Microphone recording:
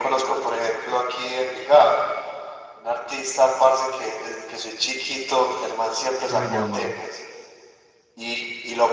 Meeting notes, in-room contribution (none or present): present